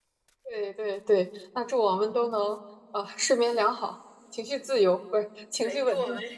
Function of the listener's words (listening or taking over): taking over